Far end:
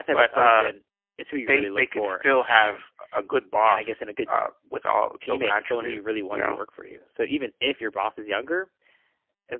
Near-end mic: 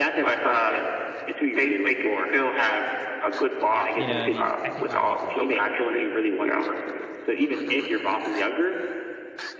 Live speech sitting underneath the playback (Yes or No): Yes